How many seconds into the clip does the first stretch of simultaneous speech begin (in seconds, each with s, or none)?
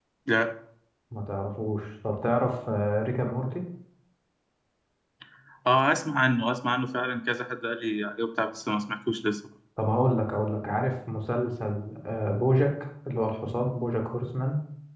none